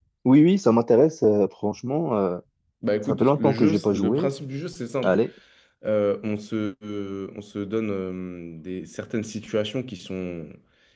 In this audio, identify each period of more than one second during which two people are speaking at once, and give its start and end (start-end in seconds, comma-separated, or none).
3.1-4.3